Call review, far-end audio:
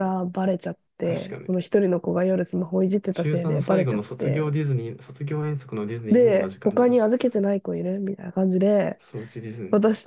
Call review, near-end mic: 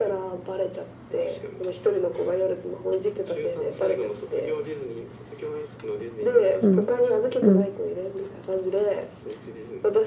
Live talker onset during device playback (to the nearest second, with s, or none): 7 s